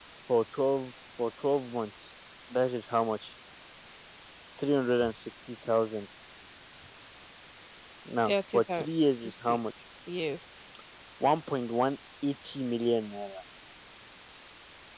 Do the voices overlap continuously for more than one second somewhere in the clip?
Yes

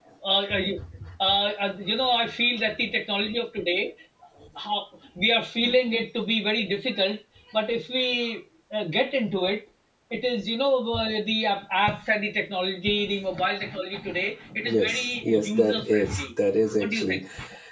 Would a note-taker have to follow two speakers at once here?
Yes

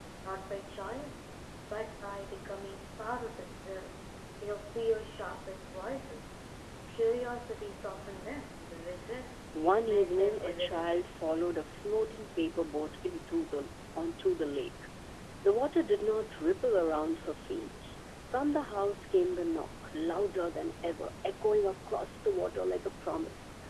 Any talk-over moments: Yes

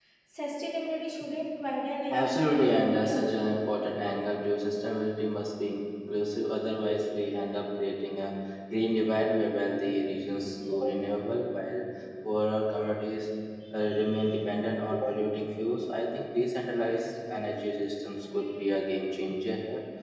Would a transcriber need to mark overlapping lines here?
Yes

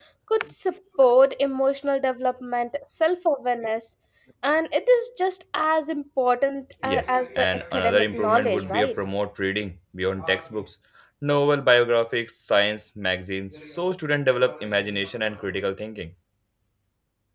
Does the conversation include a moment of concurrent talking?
Yes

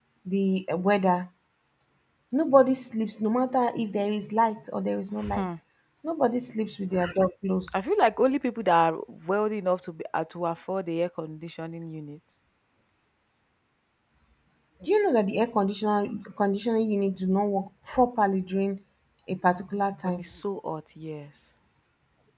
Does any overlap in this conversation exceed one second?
No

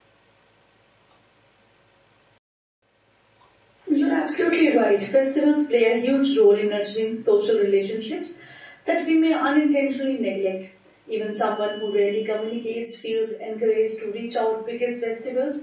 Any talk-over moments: No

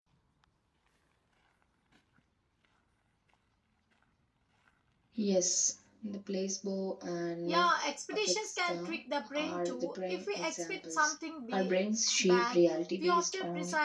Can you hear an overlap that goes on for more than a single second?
Yes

